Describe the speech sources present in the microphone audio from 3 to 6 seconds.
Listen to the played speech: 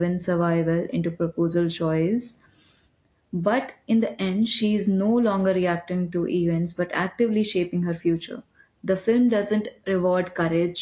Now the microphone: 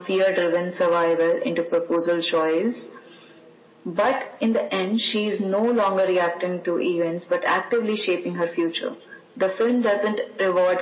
echo only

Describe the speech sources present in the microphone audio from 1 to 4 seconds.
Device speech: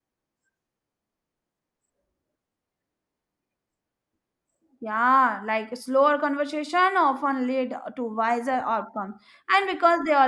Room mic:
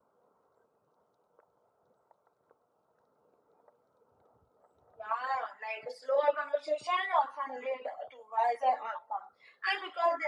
neither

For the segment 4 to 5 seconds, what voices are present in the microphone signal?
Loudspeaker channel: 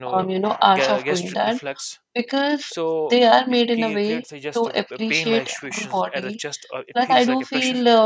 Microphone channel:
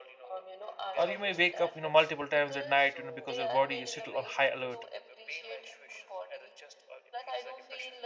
both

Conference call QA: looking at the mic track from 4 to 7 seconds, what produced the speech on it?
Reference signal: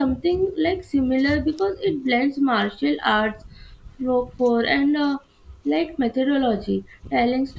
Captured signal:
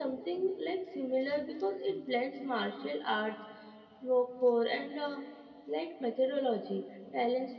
echo only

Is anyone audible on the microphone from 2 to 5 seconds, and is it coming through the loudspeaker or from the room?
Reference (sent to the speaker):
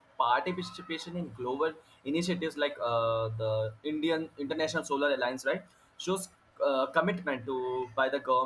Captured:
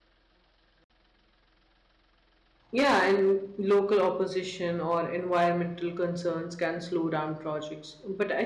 user only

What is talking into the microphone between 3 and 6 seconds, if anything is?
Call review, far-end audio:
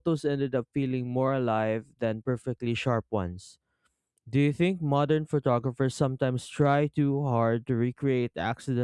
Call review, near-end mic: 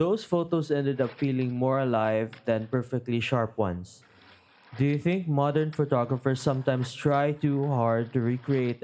echo only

